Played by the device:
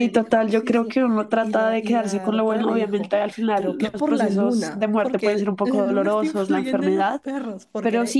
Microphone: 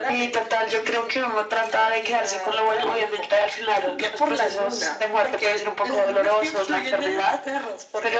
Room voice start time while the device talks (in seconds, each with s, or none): none